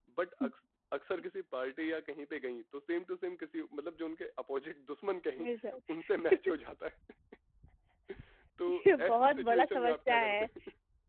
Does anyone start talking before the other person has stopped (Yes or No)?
Yes